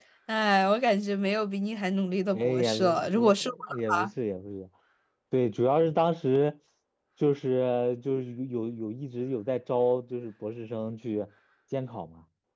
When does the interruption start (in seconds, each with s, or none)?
2.3 s